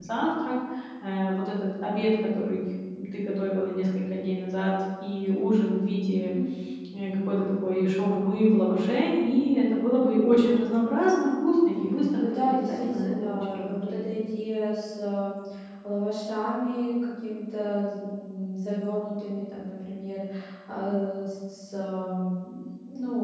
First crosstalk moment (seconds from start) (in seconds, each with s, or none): 12.2 s